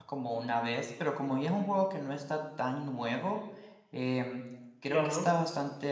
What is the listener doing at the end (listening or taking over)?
listening